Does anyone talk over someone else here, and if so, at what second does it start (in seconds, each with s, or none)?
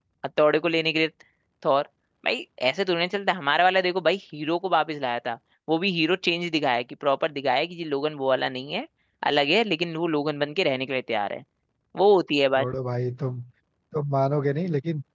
none